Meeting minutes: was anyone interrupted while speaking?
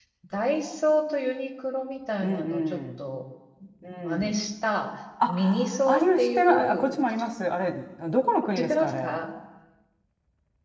Yes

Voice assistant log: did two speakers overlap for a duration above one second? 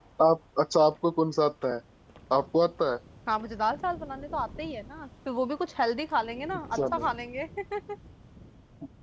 No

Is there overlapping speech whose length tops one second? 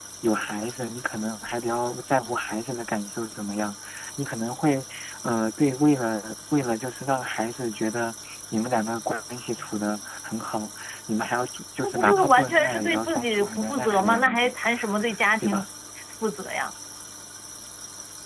Yes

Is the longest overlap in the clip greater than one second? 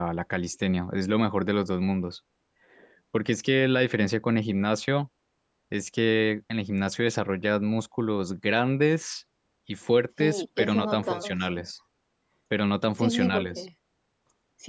Yes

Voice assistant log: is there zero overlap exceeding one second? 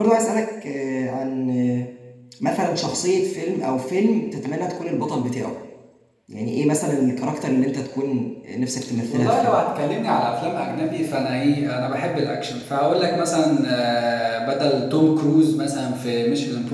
Yes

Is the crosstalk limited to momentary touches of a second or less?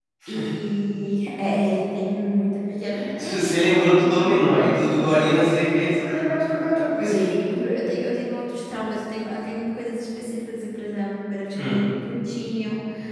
No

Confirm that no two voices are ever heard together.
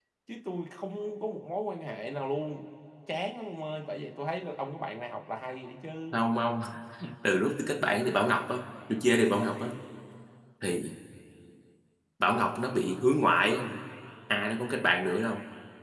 Yes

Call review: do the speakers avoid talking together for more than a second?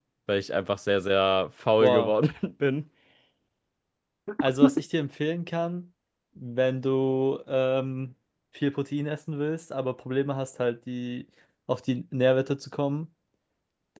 Yes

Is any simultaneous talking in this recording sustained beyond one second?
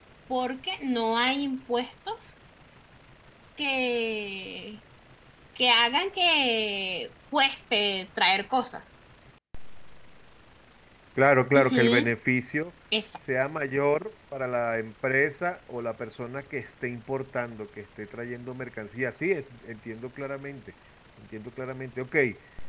No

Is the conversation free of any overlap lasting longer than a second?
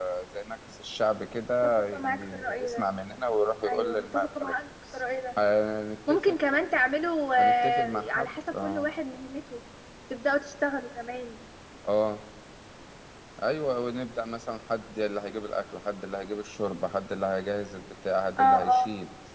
No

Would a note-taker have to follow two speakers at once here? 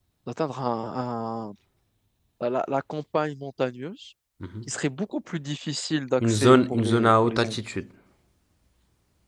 Yes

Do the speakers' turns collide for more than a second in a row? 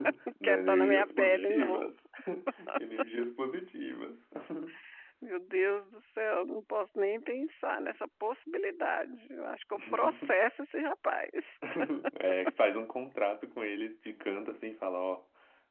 Yes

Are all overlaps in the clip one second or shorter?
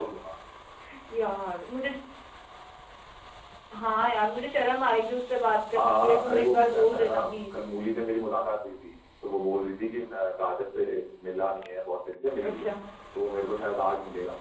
No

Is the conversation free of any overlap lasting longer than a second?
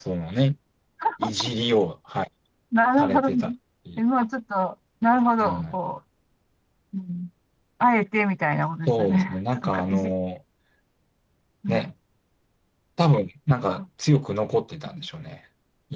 No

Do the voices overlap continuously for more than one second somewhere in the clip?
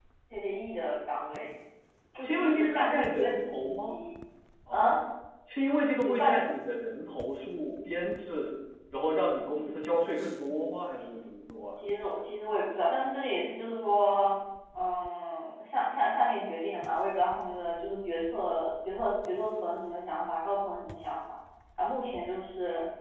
Yes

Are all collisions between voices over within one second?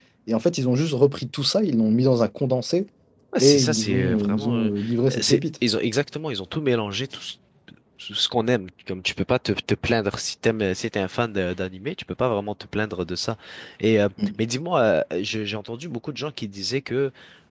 No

